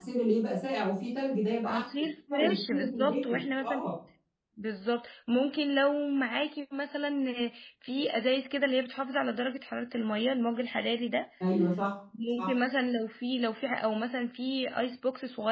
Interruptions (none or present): present